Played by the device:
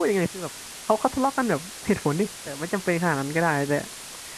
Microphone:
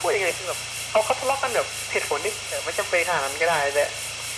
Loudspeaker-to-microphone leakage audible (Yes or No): Yes